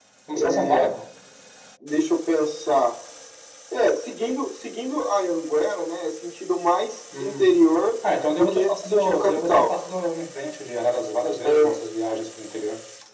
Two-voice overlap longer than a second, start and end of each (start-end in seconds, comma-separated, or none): 8.3-9.7